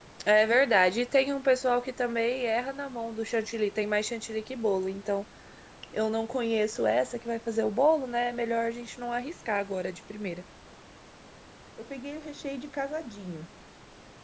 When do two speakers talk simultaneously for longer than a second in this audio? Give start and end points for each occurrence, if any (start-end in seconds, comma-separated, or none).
none